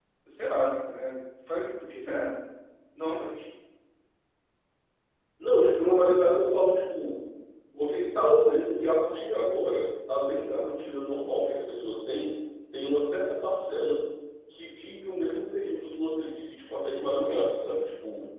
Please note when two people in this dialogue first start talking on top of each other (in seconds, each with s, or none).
none